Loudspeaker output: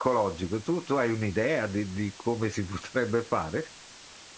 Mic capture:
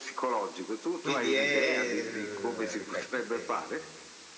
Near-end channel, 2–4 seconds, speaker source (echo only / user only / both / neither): both